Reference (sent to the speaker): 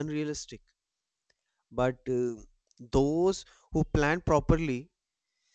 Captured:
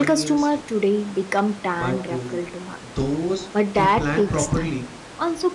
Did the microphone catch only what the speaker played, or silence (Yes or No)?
No